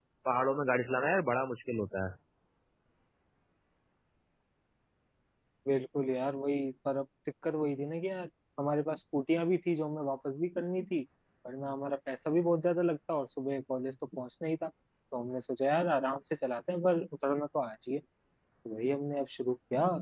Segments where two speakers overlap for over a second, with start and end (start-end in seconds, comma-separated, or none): none